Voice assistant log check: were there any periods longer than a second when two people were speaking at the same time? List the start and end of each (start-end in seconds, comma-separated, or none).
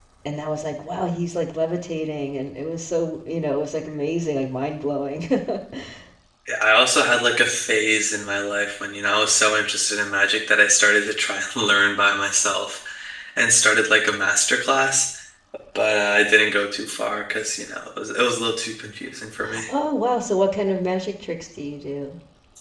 none